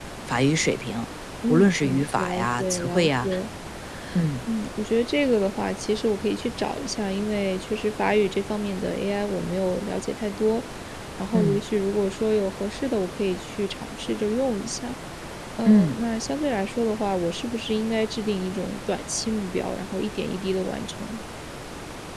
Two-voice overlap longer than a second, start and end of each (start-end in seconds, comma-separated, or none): 1.5-3.3